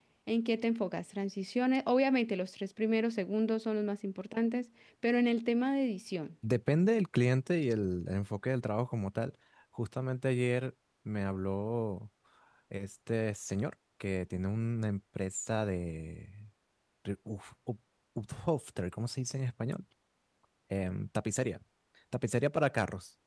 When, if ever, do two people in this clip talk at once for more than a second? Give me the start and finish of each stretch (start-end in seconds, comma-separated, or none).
none